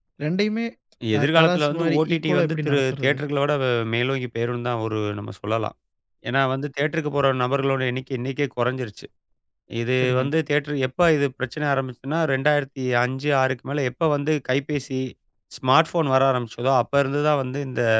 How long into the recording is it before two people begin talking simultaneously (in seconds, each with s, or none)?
1.2 s